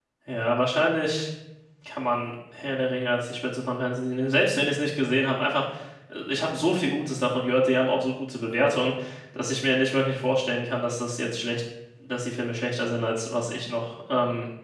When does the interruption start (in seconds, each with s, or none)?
none